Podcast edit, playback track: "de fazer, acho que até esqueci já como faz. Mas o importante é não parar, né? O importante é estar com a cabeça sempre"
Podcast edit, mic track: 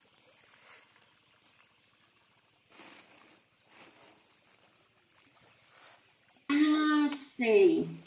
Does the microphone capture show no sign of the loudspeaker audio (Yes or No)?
Yes